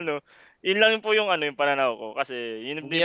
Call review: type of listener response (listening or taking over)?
taking over